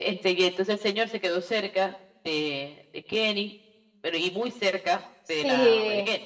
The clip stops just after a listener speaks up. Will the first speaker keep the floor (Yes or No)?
No